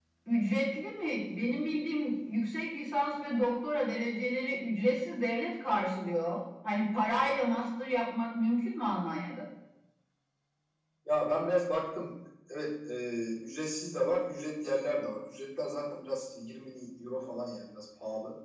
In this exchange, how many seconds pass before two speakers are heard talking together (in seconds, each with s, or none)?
none